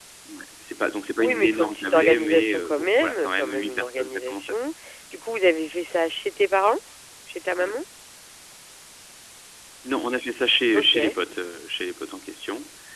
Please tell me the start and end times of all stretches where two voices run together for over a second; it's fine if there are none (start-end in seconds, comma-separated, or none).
1.2-4.5